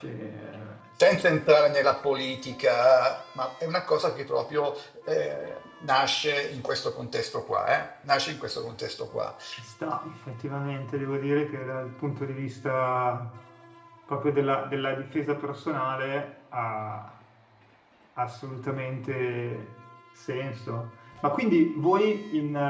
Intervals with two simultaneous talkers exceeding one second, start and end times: none

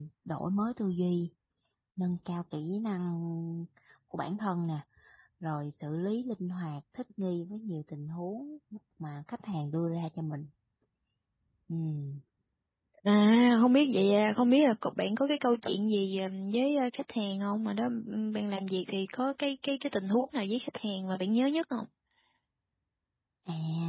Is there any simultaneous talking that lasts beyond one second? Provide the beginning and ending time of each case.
none

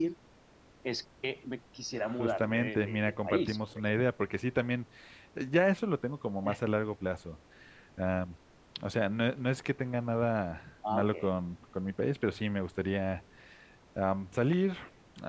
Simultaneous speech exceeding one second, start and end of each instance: 2.2-3.8

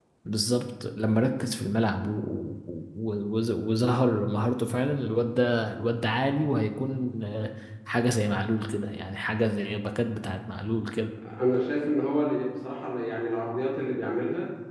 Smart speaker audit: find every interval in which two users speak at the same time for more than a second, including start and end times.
none

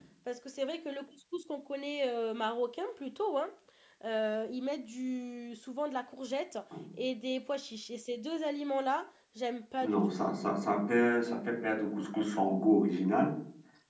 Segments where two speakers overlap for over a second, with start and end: none

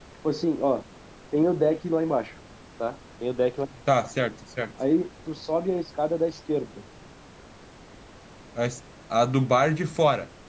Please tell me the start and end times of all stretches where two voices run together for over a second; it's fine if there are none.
none

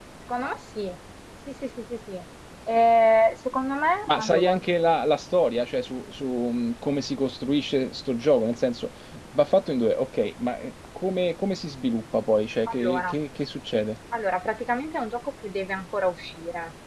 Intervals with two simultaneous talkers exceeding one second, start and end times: none

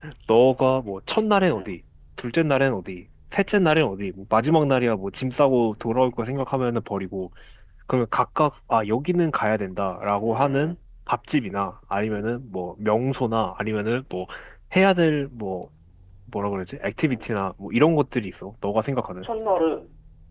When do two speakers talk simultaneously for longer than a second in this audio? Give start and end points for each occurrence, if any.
none

